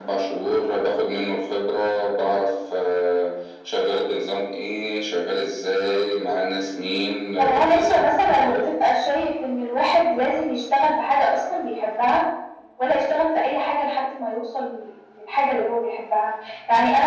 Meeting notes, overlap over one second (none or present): present